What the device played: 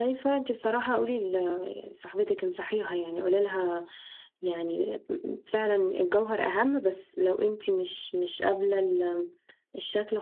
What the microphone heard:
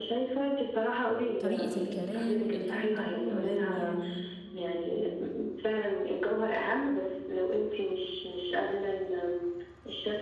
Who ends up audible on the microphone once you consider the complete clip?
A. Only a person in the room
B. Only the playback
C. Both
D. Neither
C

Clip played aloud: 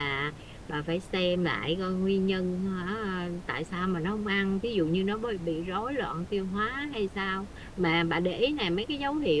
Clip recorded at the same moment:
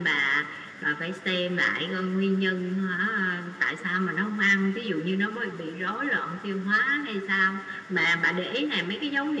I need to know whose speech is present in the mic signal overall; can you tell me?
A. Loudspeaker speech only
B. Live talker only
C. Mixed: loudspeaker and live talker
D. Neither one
A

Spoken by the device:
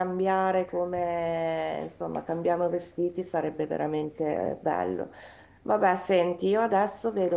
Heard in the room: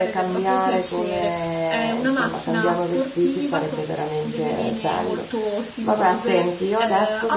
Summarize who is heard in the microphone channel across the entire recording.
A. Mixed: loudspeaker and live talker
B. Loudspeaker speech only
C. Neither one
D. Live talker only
A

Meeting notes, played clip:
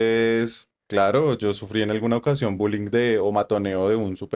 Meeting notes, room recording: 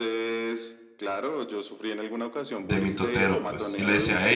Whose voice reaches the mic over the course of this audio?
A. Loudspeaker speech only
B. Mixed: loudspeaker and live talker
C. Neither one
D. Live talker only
B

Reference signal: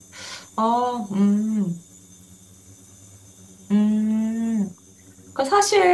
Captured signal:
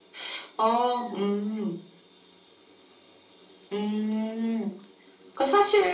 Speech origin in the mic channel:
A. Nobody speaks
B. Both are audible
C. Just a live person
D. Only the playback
D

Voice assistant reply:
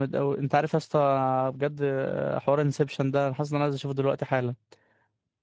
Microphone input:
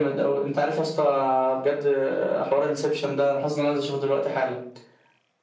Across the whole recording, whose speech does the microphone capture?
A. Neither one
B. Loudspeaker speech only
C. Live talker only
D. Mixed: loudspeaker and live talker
B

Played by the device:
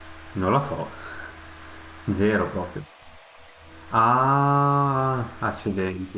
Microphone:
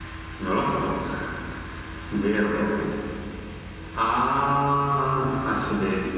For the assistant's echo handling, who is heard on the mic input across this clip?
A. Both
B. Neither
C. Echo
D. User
C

